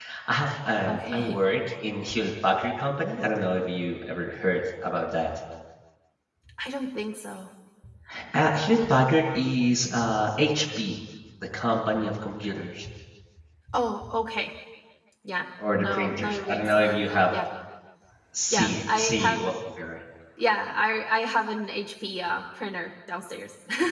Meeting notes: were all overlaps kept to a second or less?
No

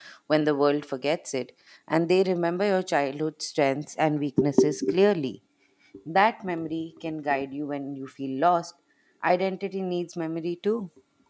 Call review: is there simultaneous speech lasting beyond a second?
No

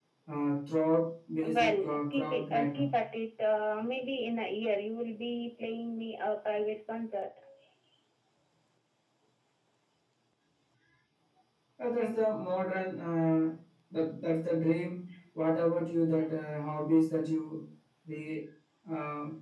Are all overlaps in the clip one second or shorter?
No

